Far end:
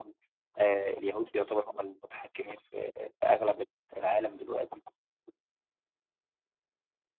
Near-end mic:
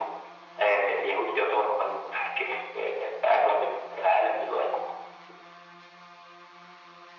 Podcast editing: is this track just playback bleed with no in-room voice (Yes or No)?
Yes